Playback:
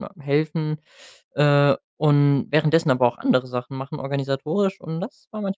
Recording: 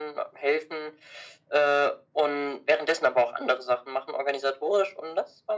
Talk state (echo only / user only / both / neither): echo only